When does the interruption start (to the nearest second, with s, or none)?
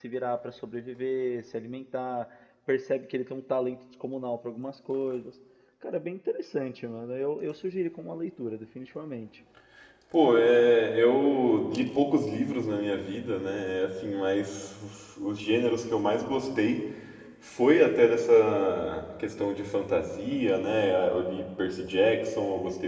none